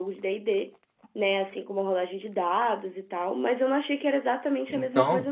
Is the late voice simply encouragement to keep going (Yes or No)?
No